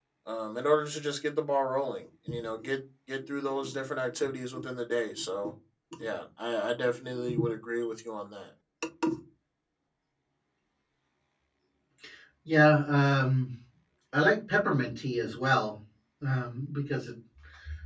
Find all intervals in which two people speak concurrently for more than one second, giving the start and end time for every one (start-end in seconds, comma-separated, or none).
none